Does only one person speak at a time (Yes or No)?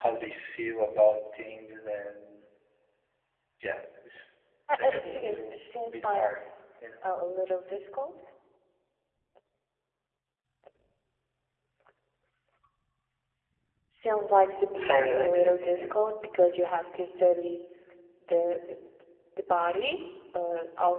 No